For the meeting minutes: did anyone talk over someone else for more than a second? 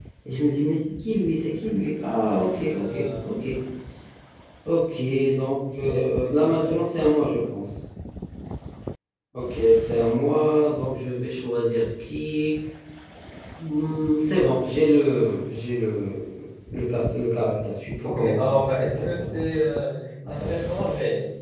Yes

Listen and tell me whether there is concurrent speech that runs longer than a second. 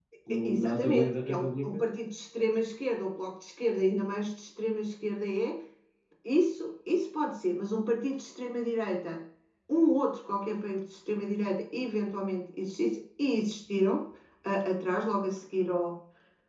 Yes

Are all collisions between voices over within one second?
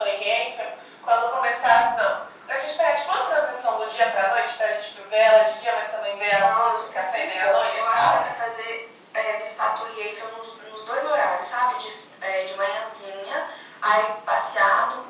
No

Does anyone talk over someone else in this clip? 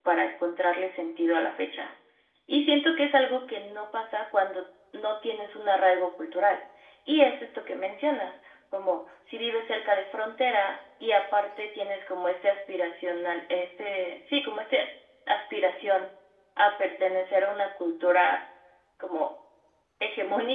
No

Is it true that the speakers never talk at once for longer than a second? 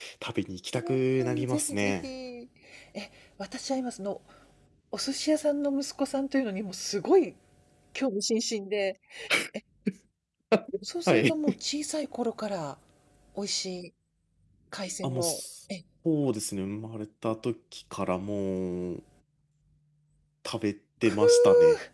No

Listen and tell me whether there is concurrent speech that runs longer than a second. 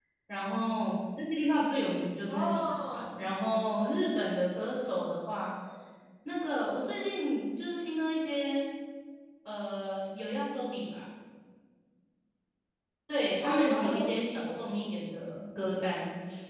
Yes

